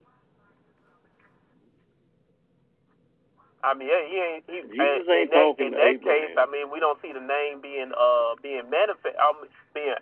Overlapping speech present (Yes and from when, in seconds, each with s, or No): Yes, from 4.6 s